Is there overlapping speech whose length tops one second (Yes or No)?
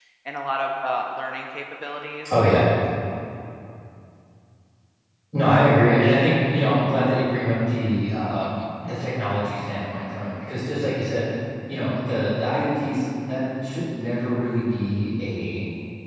No